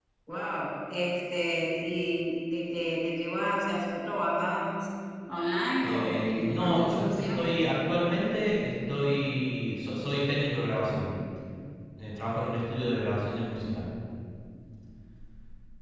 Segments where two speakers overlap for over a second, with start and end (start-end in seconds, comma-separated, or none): 5.8-7.6